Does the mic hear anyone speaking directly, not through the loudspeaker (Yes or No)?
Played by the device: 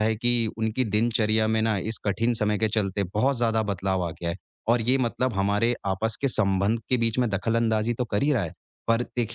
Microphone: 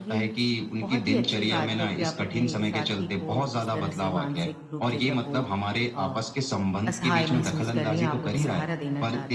Yes